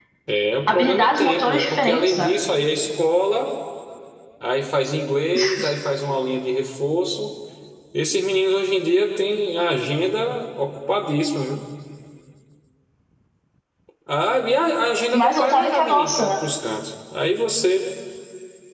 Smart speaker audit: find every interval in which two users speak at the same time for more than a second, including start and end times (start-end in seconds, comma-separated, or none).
0.7-2.3, 15.1-16.4